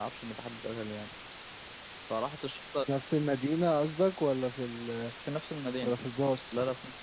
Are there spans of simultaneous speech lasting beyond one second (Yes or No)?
No